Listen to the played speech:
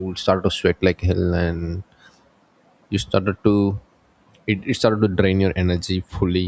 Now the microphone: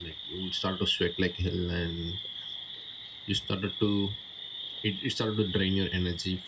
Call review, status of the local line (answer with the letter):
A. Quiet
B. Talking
A